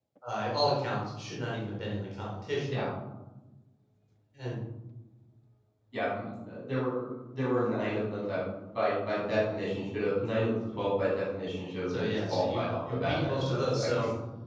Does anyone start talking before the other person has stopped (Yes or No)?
Yes